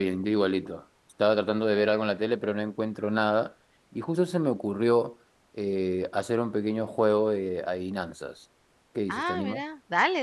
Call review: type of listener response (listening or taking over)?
taking over